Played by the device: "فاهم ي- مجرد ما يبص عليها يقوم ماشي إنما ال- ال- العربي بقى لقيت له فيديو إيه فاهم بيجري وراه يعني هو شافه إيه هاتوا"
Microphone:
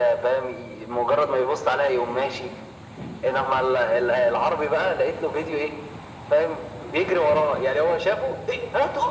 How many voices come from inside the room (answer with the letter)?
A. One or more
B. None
B